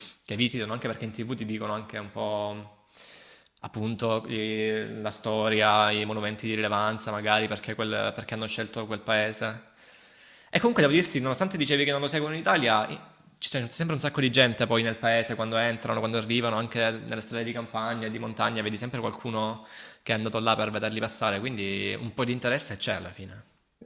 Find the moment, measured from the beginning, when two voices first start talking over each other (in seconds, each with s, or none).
none